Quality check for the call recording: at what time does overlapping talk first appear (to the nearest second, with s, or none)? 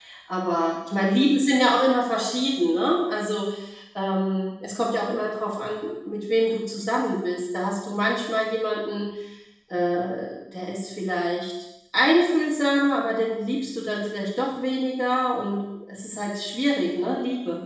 none